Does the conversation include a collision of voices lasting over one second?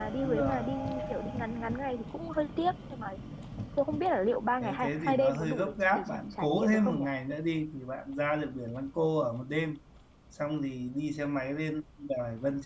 Yes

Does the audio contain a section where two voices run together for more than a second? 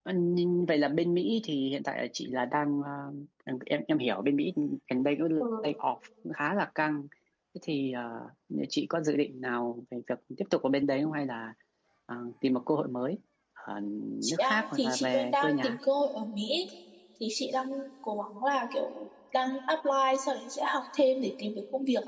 Yes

